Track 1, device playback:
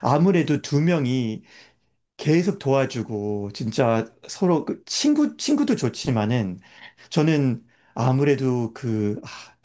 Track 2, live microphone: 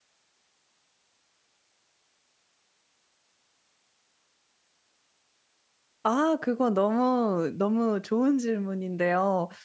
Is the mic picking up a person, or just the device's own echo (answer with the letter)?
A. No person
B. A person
B